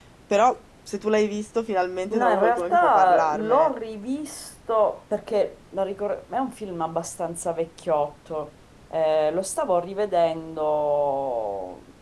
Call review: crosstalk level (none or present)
present